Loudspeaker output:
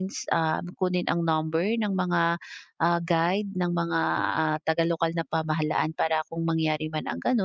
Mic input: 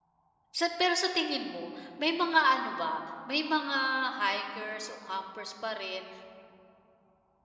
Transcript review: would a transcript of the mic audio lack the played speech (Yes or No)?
Yes